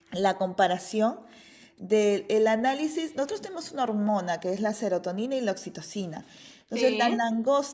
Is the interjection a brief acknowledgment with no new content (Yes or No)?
Yes